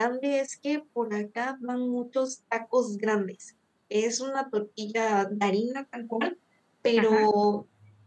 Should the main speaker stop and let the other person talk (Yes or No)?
No